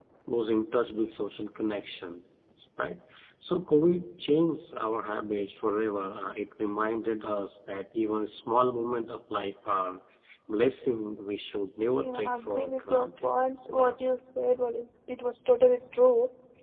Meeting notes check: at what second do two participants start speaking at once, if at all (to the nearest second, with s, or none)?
12 s